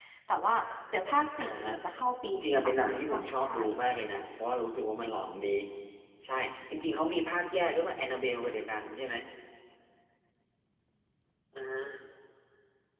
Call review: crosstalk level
present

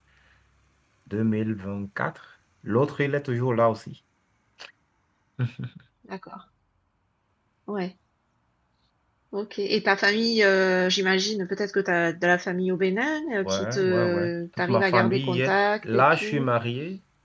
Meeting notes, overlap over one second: present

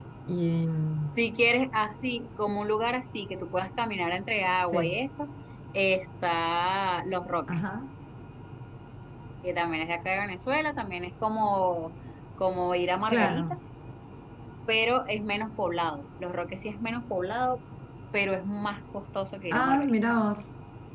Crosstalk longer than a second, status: none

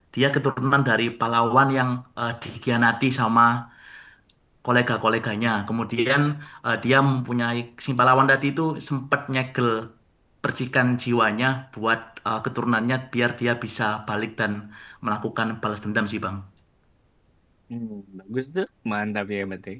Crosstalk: none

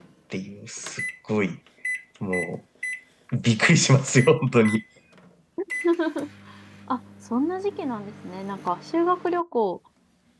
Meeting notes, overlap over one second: none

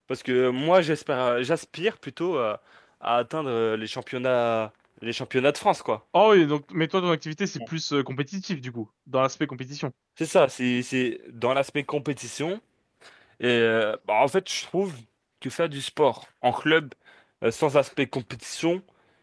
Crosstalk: none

